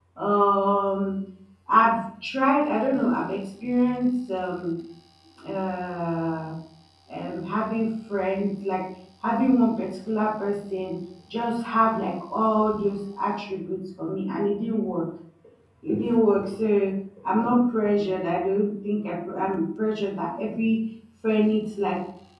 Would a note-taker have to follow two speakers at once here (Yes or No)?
No